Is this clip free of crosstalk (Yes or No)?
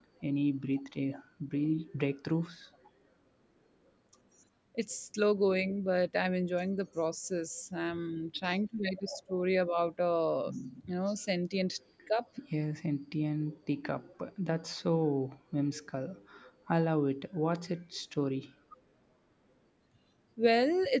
Yes